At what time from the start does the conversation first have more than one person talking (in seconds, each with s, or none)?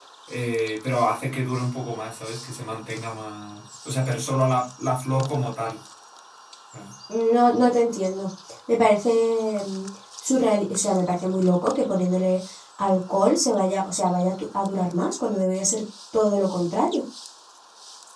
none